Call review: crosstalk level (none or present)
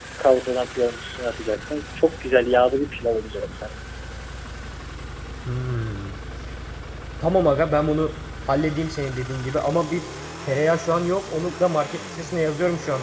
none